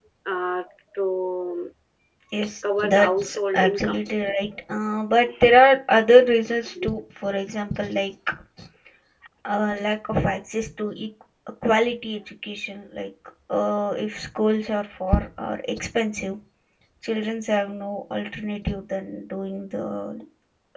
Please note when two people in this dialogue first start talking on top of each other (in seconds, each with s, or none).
2.6 s